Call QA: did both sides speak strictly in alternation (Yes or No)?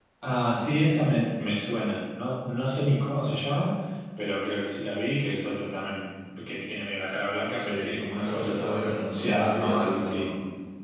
No